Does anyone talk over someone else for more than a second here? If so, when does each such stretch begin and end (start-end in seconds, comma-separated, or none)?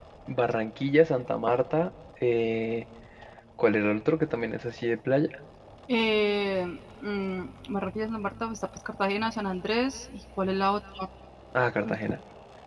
none